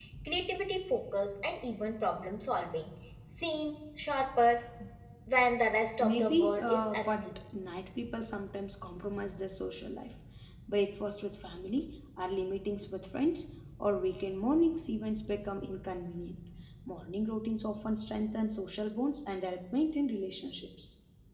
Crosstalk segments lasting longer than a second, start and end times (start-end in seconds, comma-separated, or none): 6.0-7.3